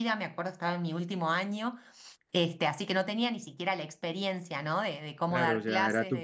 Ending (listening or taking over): taking over